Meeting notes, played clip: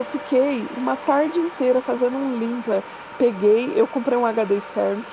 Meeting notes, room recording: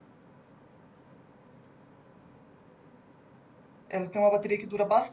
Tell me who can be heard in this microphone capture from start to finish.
user only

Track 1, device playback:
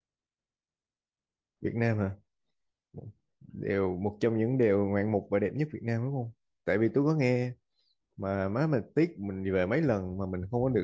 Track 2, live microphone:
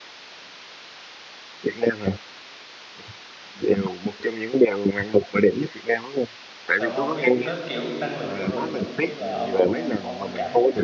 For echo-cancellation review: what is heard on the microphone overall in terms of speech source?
both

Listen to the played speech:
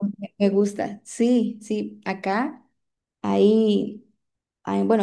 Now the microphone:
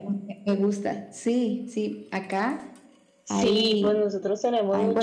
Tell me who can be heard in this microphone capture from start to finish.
both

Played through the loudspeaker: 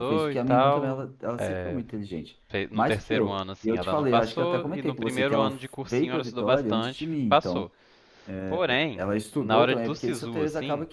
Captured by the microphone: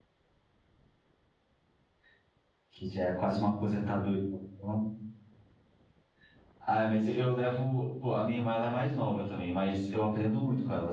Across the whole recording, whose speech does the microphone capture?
user only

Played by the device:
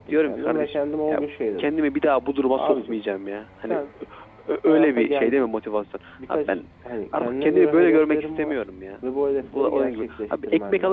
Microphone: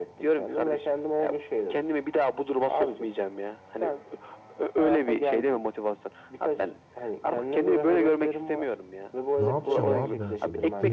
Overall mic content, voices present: both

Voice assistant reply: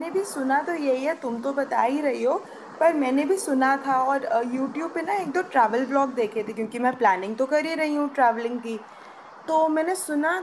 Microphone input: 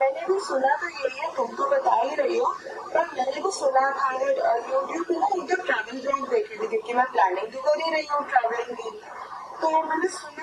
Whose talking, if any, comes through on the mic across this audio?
echo only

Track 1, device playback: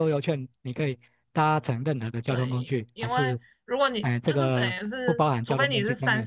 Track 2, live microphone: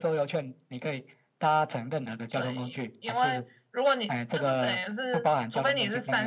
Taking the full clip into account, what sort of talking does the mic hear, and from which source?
echo only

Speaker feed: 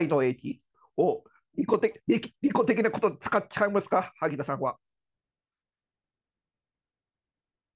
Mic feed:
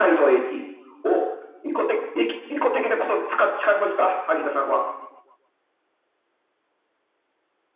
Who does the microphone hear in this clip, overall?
echo only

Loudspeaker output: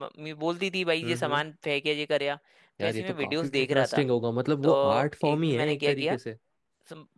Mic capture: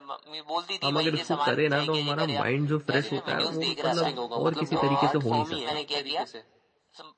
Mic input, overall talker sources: both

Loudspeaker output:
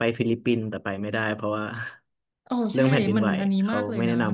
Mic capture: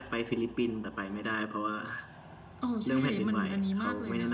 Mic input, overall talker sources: echo only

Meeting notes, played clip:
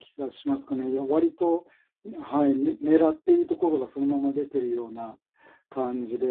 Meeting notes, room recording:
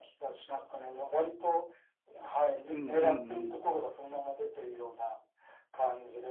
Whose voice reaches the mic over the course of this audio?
both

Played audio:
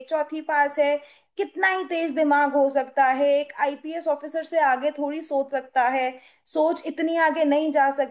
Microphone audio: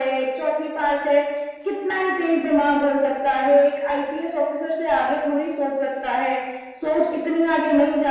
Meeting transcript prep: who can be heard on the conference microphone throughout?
echo only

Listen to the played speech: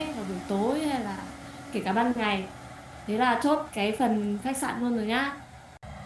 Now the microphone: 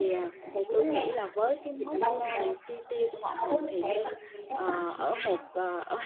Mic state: both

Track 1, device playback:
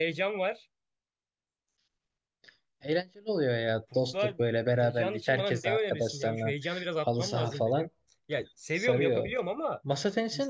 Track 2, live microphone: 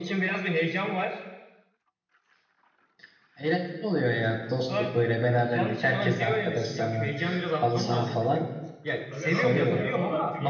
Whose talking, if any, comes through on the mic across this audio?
both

